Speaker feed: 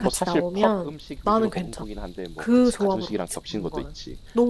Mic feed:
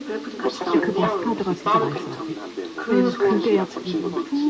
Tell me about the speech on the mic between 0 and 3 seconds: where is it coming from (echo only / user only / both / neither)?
both